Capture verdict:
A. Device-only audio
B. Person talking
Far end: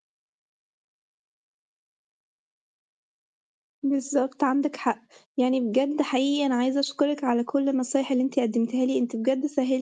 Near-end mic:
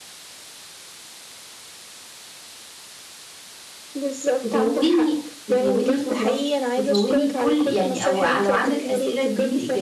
B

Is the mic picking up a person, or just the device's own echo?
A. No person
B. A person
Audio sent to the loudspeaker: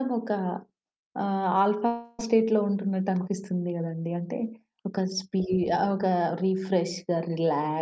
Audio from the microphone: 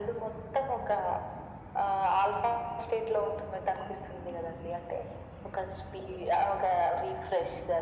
A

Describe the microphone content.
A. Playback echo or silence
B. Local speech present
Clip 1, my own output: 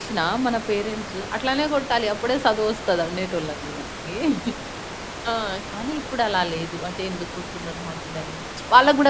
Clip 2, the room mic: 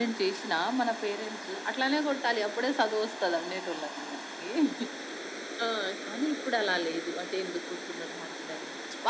A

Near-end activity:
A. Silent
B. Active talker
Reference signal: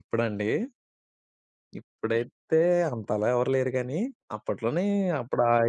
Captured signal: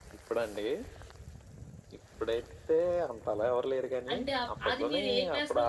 B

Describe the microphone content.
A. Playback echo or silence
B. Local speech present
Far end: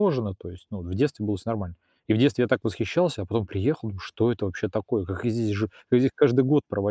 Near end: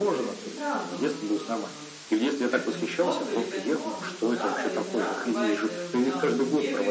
B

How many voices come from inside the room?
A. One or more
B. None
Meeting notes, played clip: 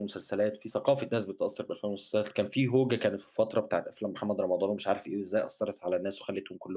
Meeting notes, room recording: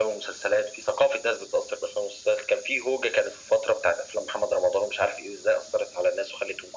B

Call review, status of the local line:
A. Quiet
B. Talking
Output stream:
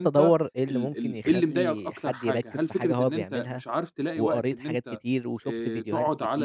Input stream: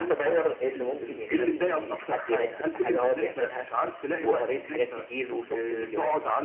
A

